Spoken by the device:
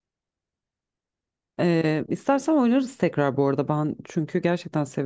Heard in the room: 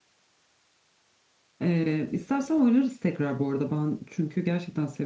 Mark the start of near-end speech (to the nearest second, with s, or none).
none